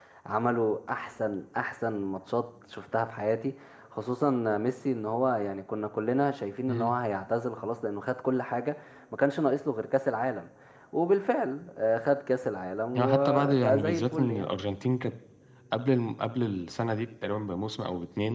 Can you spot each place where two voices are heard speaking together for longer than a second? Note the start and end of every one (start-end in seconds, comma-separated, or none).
12.9-14.5